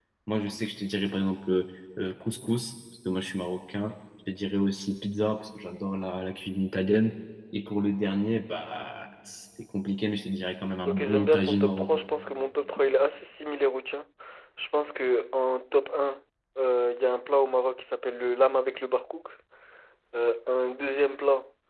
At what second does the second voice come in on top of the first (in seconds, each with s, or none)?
10.8 s